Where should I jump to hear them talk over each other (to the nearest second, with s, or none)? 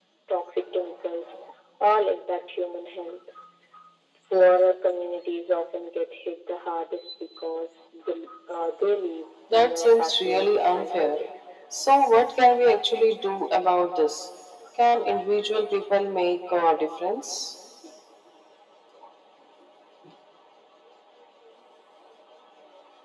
10 s